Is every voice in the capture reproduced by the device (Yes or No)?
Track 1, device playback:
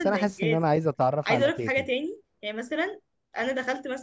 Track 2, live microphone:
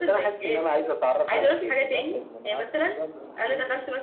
No